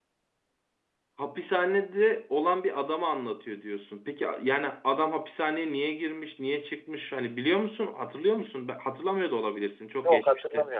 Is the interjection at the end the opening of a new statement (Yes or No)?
Yes